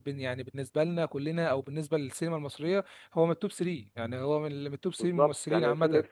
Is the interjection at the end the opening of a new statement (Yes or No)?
Yes